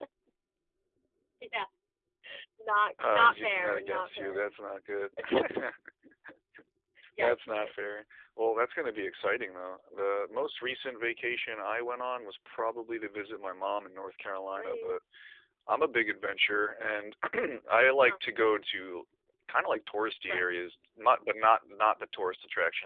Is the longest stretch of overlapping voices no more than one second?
No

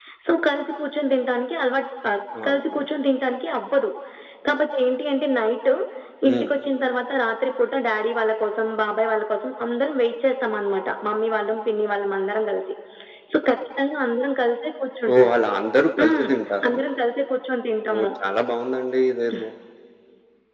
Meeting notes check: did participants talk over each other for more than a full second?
No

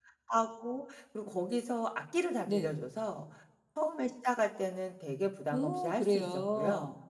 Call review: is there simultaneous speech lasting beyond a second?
Yes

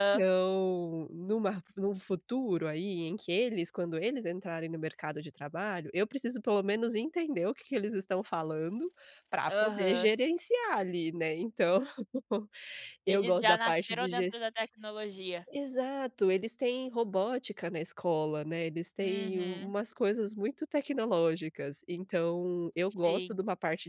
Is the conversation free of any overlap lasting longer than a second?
No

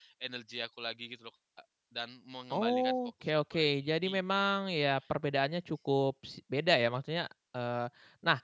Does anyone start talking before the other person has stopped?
Yes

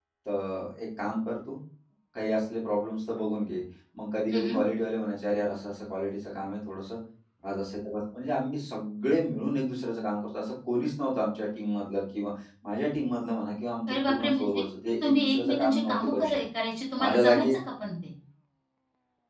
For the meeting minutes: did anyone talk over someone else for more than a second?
Yes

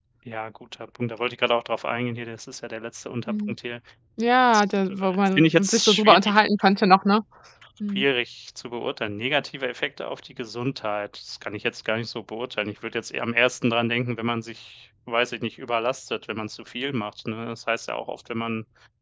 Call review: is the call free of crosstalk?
No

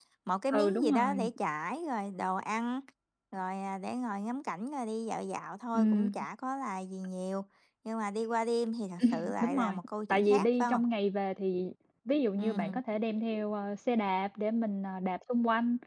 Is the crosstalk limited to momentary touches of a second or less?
No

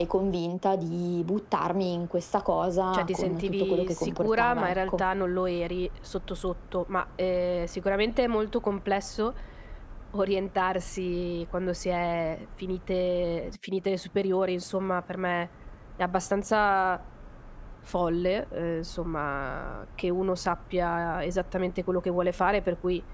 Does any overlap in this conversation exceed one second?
Yes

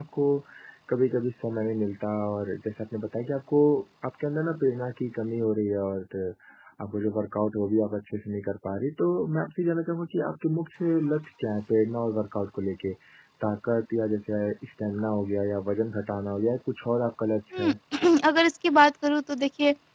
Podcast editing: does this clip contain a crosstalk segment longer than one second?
No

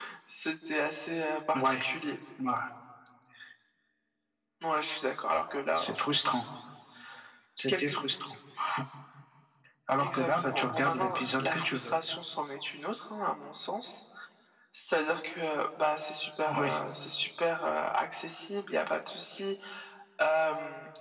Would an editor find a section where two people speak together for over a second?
Yes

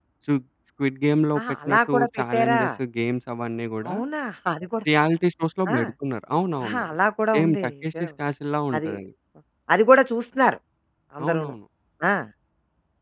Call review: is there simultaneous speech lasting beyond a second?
Yes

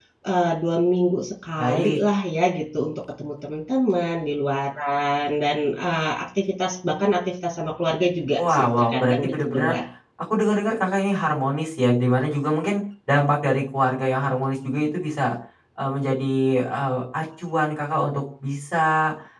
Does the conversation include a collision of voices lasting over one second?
Yes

